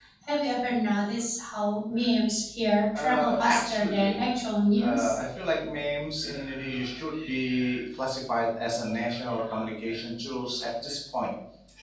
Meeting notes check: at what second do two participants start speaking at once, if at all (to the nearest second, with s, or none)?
3 s